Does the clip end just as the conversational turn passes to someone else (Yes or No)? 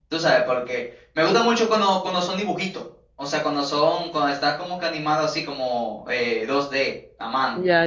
Yes